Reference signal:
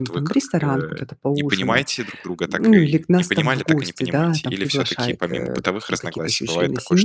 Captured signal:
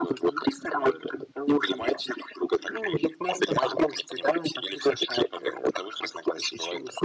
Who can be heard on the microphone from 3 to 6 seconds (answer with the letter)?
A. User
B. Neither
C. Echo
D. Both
C